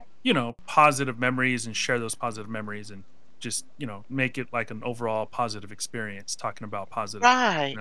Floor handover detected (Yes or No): Yes